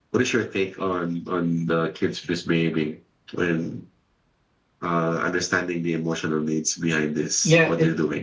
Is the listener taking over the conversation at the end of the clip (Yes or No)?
Yes